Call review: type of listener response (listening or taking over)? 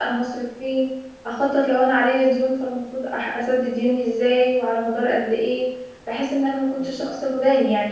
listening